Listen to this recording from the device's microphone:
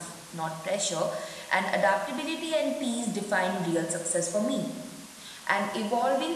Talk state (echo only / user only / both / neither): echo only